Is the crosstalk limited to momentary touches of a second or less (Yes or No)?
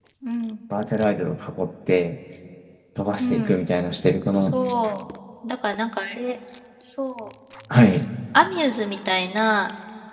Yes